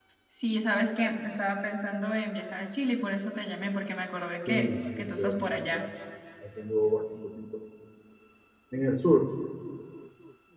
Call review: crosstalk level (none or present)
present